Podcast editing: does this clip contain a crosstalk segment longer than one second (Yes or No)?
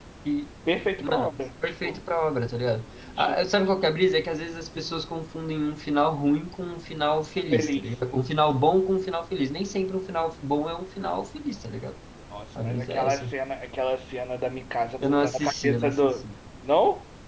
Yes